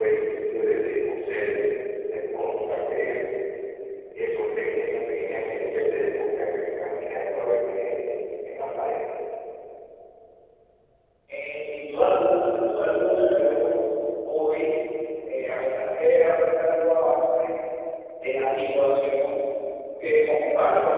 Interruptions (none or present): none